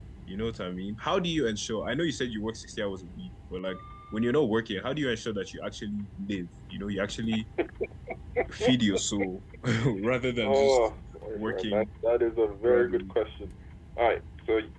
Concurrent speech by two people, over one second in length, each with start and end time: none

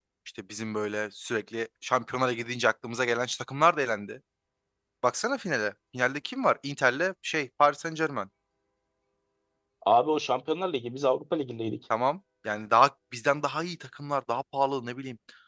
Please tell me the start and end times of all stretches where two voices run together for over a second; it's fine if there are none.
none

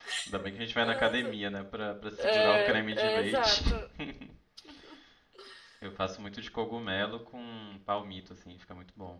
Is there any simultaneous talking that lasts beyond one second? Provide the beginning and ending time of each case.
2.2-3.6

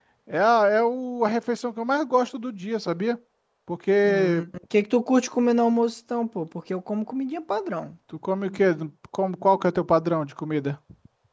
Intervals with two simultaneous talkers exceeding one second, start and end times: none

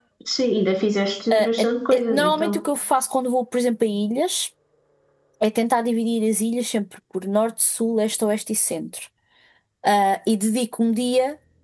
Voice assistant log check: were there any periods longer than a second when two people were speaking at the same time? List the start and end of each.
1.3-2.5

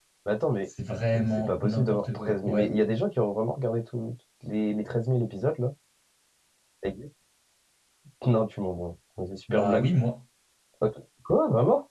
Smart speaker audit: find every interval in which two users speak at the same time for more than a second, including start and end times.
1.2-2.7

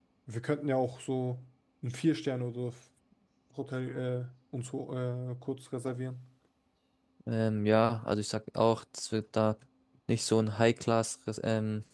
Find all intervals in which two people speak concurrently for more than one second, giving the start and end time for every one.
none

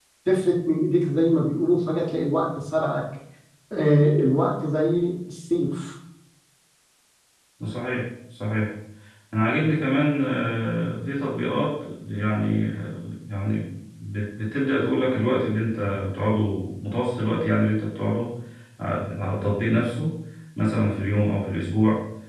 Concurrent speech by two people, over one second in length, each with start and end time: none

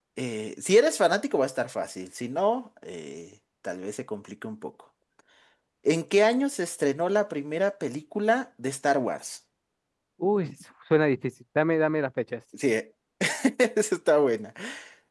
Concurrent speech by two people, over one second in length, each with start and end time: none

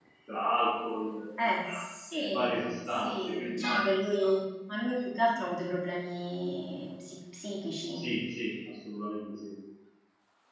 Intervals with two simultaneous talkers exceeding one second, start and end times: 2.2-3.6

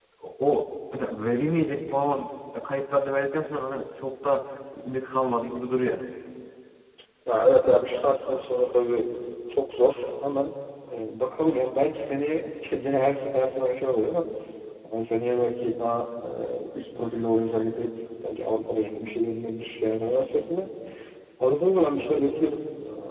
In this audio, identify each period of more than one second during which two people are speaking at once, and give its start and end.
none

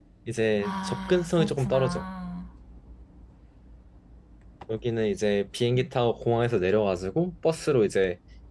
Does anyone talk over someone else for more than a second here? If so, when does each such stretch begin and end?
0.6-2.0

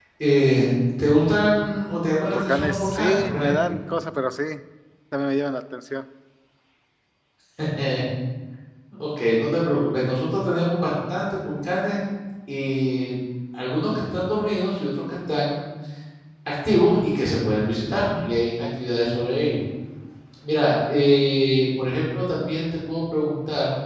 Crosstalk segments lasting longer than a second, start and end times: 2.2-3.8

